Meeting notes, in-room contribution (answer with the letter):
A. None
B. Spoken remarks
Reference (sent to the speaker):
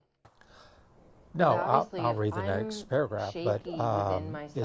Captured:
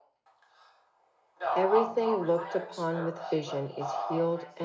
B